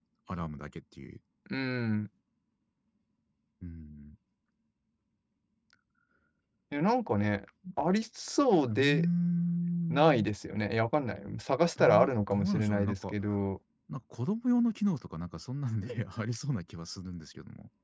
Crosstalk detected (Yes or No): Yes